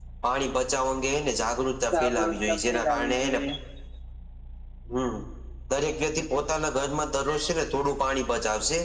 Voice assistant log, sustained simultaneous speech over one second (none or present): present